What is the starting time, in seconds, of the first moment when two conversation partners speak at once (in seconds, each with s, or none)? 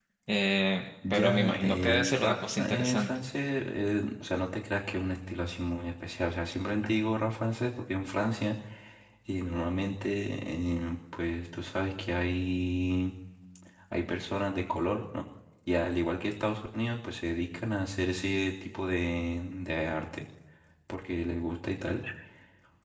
1.1 s